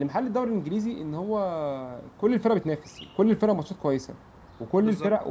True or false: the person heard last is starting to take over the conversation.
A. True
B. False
B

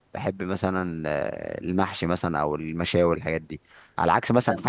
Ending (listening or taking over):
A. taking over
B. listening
B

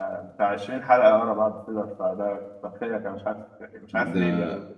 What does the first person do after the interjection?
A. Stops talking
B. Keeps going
A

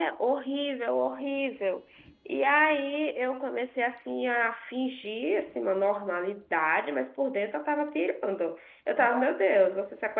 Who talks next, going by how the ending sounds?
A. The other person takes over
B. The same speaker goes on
B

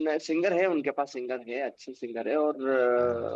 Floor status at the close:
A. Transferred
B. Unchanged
B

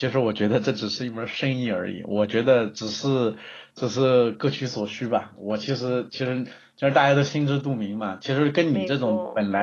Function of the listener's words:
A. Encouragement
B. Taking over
A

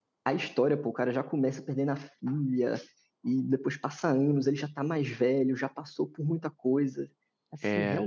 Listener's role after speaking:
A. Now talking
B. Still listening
B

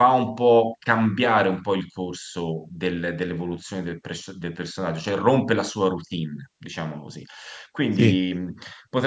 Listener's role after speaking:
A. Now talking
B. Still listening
B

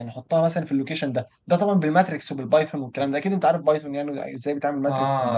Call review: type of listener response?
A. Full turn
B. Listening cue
A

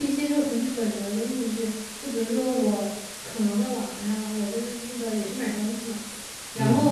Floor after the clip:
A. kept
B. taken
A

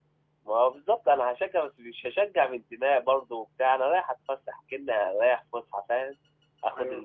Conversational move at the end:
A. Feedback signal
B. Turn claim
A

